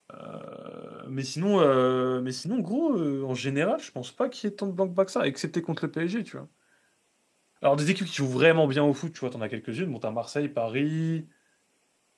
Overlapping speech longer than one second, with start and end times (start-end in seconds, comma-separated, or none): none